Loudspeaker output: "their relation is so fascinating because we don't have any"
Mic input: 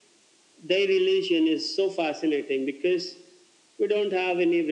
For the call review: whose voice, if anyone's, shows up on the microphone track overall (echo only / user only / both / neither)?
echo only